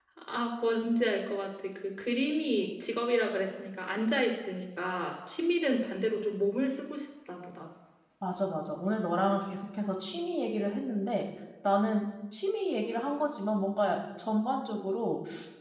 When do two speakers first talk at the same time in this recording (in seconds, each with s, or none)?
none